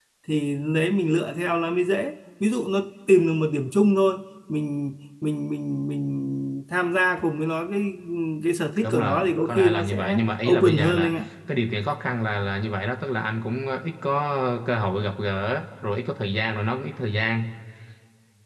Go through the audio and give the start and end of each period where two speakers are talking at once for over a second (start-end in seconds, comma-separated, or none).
8.8-11.1